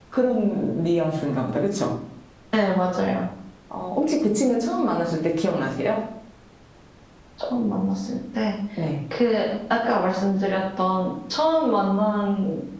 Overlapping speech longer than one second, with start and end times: none

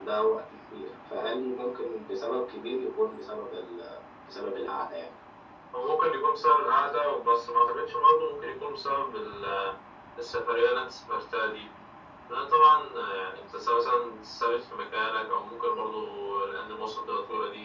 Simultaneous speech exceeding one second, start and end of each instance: none

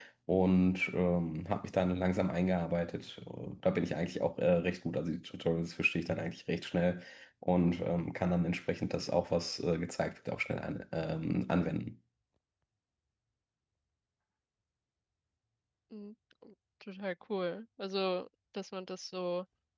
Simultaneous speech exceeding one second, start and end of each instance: none

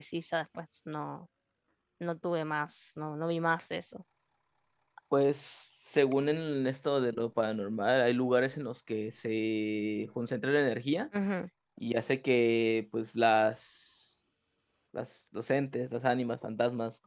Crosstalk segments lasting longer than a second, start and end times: none

